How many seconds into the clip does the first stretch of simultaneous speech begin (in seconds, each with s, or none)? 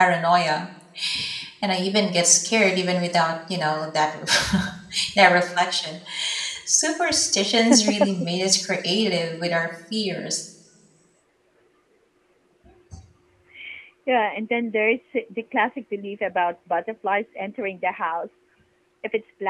none